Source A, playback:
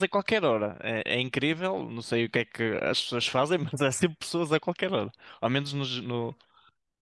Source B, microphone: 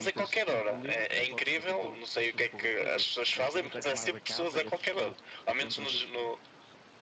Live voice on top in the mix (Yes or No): No